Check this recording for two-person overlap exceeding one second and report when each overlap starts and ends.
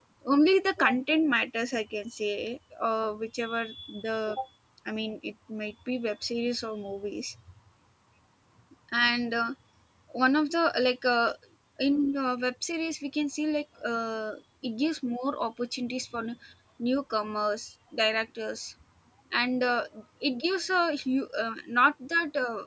none

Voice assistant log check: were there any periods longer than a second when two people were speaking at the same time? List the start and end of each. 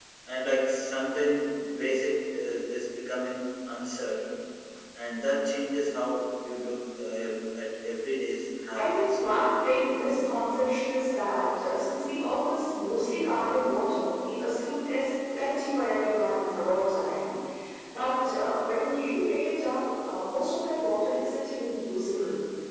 none

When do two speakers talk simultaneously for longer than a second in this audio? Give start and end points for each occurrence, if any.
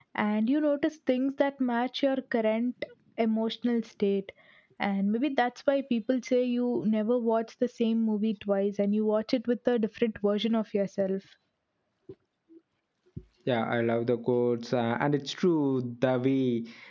none

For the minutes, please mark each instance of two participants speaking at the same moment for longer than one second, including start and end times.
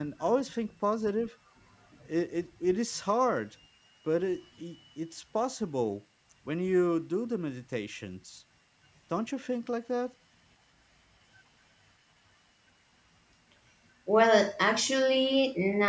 none

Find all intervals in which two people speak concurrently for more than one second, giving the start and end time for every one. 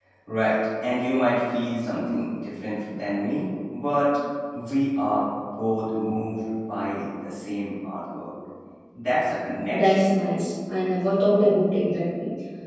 none

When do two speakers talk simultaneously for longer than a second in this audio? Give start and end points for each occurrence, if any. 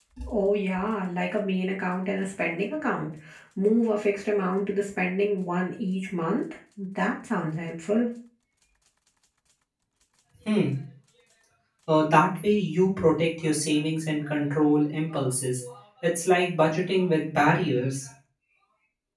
none

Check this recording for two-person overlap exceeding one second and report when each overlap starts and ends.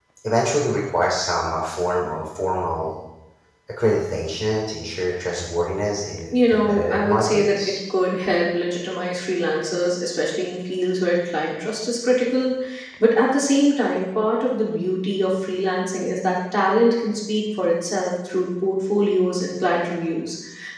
6.5-7.7

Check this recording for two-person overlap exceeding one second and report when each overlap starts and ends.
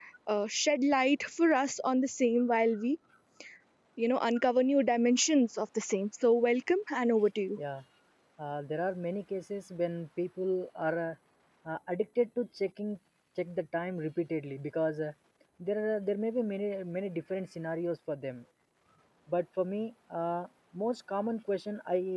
none

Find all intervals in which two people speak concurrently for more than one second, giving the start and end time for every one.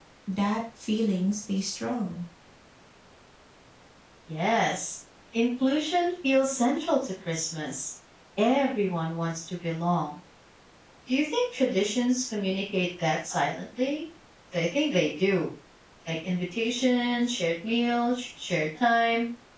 none

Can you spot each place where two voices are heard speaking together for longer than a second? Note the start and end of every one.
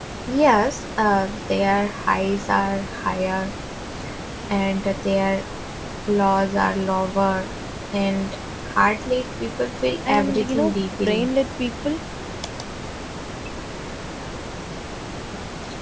10.1-11.3

